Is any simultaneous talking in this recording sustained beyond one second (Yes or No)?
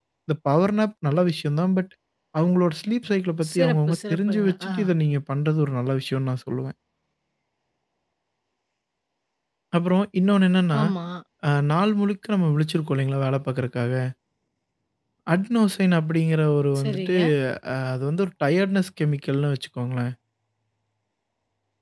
Yes